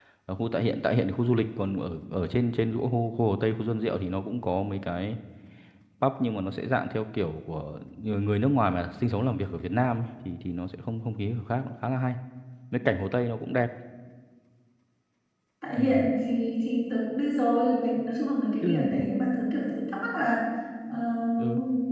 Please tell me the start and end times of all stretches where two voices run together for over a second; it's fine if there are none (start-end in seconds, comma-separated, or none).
none